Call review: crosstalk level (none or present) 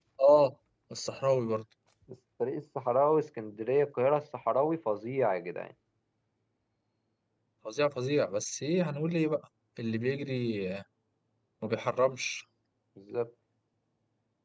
none